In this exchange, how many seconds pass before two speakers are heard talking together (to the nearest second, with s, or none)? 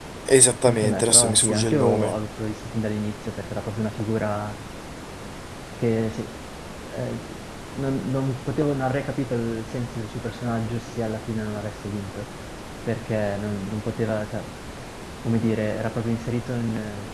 1 s